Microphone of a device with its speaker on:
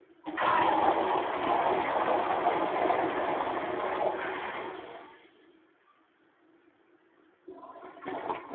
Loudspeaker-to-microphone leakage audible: No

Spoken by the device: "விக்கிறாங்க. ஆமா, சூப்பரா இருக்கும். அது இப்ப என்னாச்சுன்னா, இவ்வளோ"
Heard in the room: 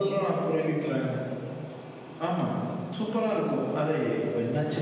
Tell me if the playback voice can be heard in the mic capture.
Yes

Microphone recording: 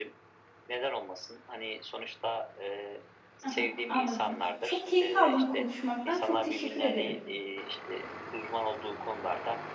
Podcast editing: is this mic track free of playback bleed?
No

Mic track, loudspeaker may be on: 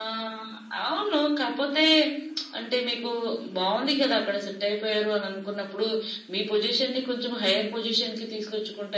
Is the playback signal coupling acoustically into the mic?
Yes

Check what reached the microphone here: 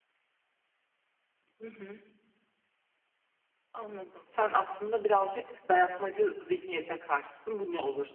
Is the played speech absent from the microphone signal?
Yes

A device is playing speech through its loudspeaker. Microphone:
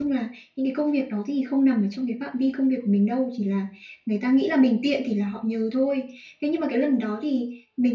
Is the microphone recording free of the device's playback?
Yes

